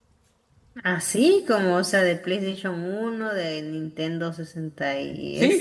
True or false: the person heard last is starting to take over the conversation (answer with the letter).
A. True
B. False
A